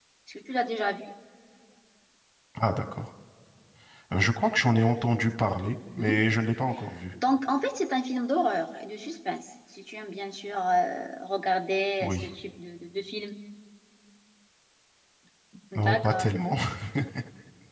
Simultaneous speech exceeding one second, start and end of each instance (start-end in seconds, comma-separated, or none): none